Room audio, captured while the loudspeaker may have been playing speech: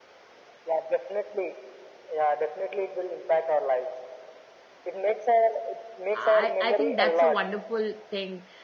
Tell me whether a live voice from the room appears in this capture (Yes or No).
Yes